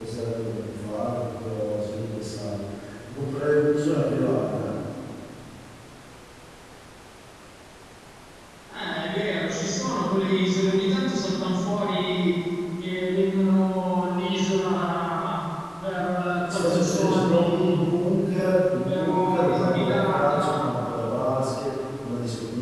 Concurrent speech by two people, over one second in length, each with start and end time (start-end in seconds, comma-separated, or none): 16.4-17.8, 18.8-20.4